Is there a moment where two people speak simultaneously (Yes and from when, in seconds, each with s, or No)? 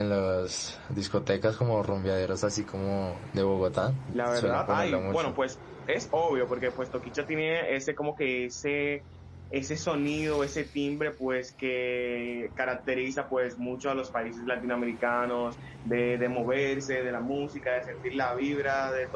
Yes, from 4.1 s